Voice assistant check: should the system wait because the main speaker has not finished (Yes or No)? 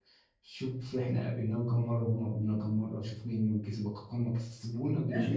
No